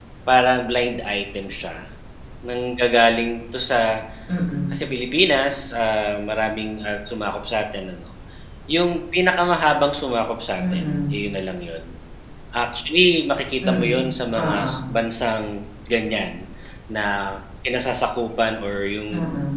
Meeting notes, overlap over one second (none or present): none